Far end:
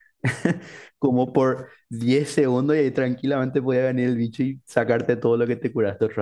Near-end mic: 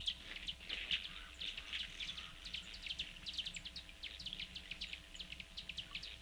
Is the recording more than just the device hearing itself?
No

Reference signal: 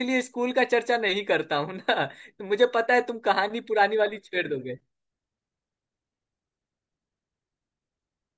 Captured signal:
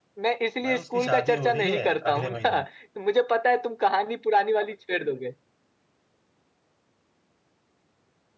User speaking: Yes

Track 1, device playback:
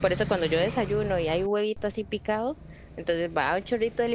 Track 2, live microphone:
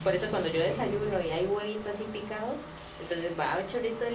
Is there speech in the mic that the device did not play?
No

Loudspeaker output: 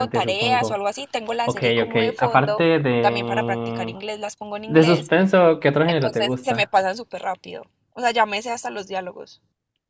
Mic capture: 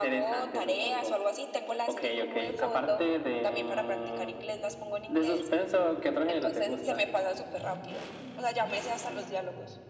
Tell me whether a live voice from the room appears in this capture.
No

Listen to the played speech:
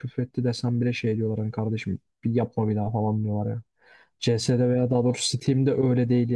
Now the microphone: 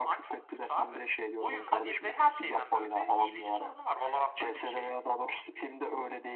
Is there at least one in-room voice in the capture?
Yes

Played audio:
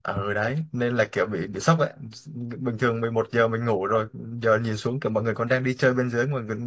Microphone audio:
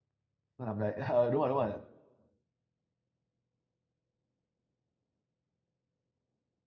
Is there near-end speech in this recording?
Yes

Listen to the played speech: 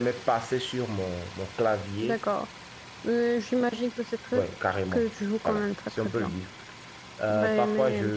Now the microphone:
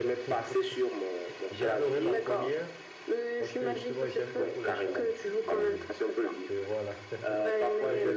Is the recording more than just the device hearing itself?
Yes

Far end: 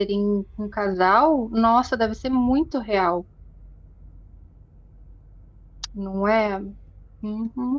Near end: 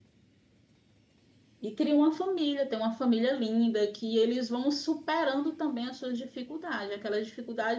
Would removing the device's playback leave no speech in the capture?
No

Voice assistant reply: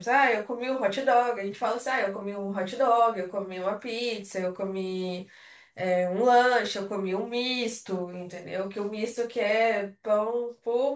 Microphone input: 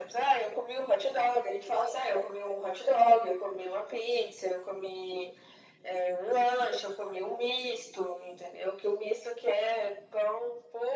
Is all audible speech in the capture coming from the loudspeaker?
Yes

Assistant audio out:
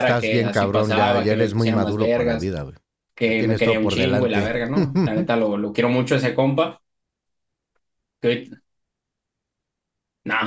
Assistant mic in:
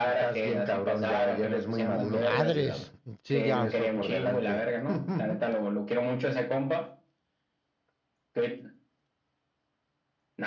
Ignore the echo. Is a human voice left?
Yes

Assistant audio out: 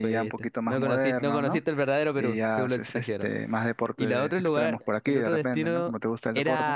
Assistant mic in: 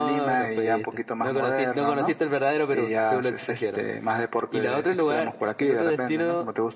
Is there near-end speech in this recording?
No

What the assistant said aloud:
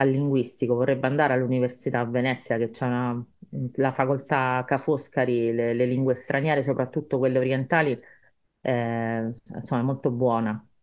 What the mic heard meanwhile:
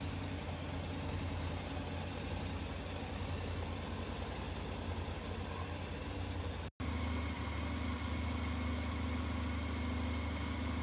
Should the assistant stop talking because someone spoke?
No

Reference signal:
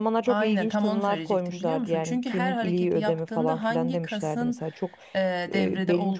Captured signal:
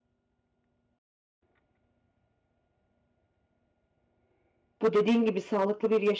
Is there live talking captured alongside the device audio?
Yes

